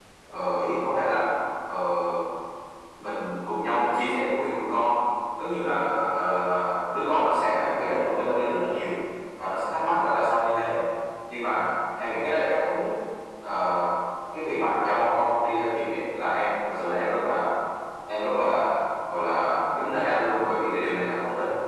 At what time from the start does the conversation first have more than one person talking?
none

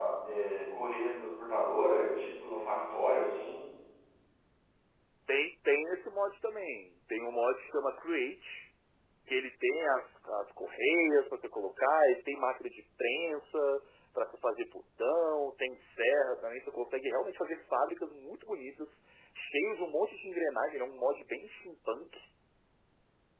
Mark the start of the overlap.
none

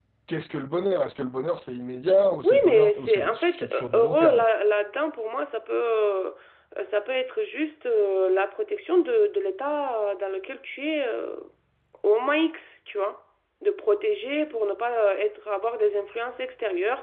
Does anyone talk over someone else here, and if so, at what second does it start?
2.4 s

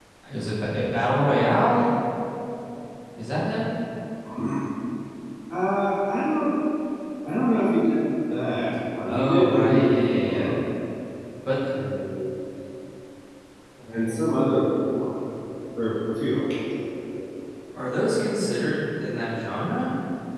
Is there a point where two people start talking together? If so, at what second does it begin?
9.1 s

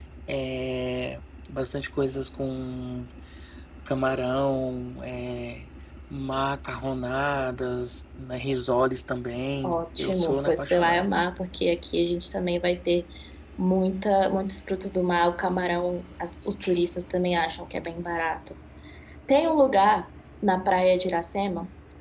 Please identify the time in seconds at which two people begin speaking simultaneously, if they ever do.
9.6 s

